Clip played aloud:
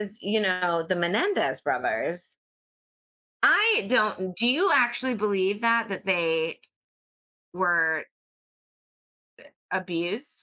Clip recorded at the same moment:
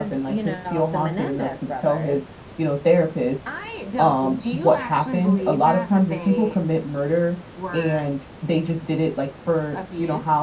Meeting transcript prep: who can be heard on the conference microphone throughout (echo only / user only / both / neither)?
both